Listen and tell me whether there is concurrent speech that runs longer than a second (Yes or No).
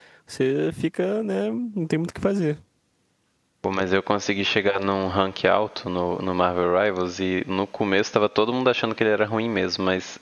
No